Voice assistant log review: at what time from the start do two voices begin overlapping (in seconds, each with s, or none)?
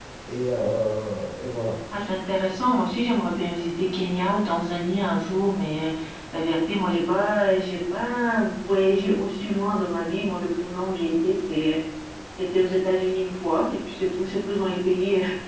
none